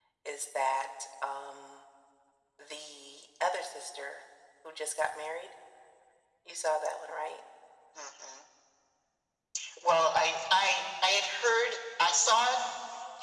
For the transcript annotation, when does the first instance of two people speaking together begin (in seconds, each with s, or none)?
none